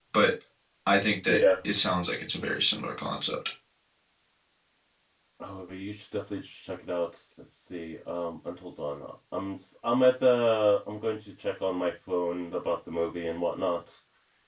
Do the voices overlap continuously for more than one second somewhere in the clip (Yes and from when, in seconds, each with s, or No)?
No